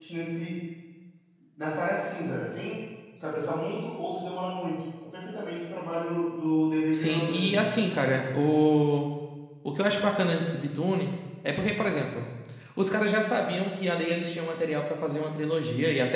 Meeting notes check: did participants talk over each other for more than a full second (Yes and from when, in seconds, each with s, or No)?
Yes, from 6.9 s